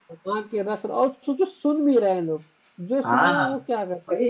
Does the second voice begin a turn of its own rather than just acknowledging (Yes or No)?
Yes